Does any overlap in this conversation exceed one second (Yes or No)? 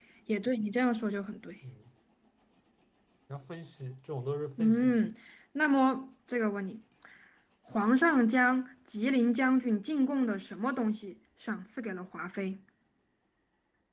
No